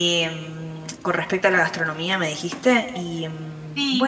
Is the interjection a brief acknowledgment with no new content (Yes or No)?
No